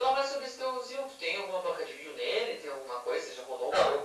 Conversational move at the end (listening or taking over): taking over